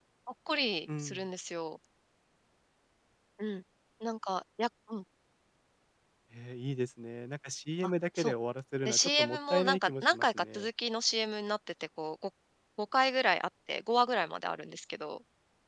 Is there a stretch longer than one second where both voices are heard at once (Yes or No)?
Yes